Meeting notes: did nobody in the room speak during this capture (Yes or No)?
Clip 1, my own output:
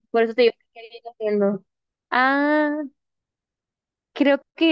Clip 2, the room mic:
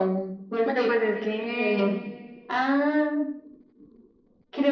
No